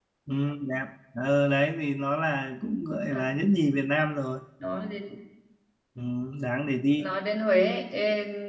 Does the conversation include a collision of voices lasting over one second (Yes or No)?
No